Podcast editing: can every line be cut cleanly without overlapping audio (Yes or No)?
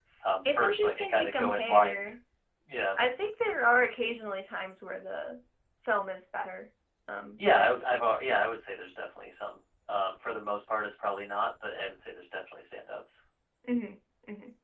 No